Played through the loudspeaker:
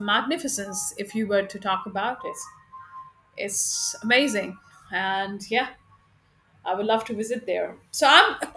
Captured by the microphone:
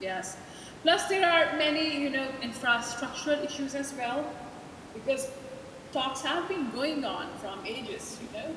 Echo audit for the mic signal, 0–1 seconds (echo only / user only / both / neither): user only